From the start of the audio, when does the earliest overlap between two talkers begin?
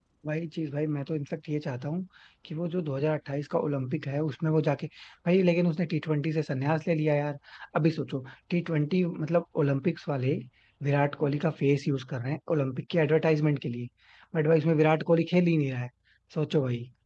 none

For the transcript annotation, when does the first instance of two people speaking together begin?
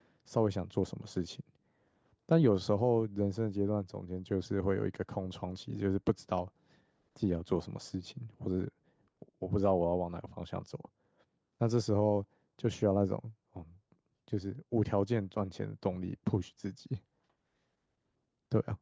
none

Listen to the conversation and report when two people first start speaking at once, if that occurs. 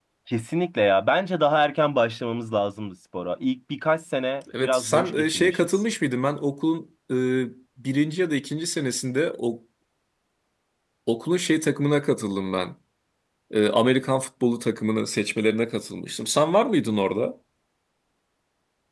4 s

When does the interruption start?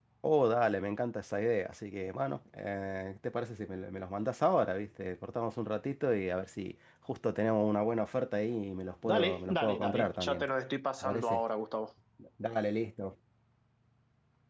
9 s

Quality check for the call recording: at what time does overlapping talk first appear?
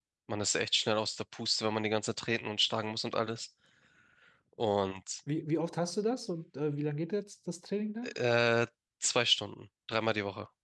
none

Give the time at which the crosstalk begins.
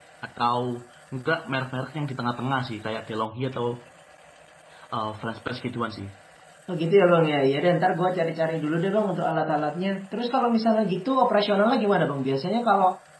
none

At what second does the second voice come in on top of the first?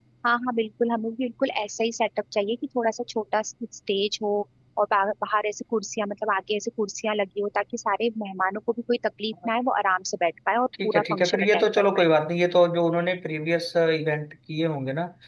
11 s

